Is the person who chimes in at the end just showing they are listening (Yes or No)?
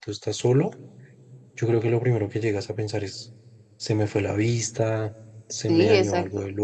No